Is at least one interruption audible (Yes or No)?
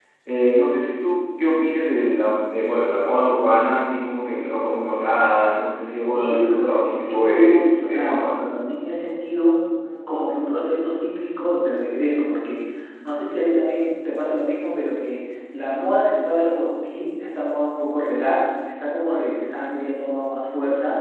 Yes